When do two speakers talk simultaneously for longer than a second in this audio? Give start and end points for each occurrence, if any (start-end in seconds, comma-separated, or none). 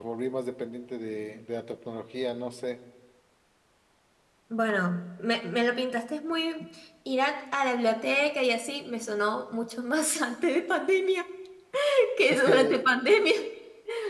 none